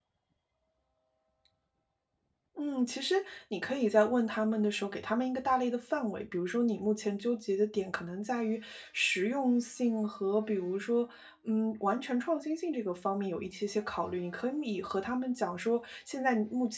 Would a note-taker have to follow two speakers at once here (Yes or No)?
No